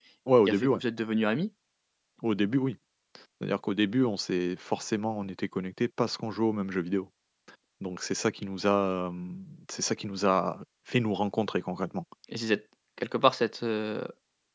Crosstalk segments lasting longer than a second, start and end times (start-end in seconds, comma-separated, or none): none